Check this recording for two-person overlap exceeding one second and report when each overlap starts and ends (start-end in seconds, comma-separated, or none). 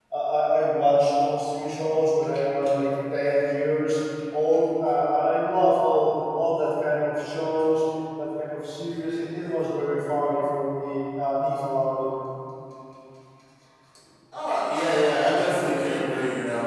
none